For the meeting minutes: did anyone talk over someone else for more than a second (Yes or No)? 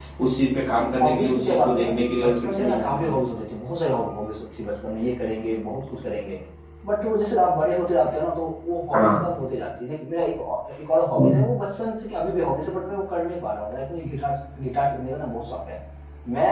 Yes